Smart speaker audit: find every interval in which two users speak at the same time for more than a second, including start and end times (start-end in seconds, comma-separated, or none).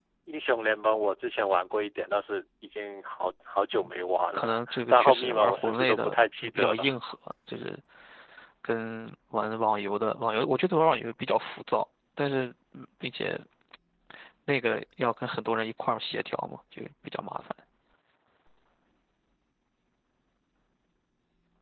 4.3-6.9